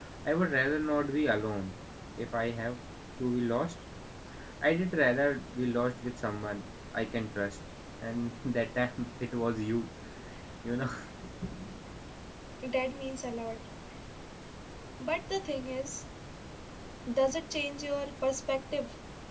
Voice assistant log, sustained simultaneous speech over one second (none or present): none